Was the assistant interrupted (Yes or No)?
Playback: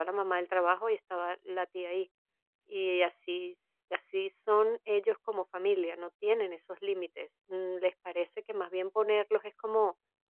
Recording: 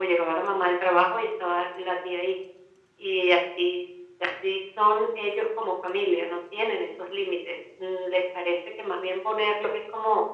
No